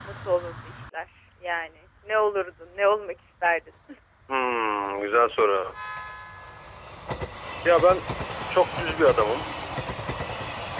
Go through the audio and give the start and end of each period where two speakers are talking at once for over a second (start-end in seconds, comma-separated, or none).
none